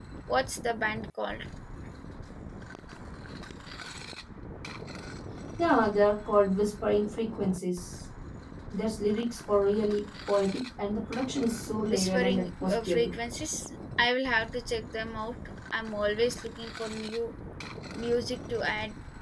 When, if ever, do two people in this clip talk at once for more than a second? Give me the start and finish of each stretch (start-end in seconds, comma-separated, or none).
11.9-13.1